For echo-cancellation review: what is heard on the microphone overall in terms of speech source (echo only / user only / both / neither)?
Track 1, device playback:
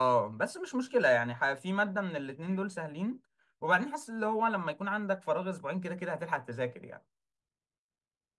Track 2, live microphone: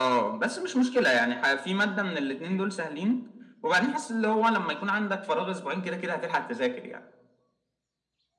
echo only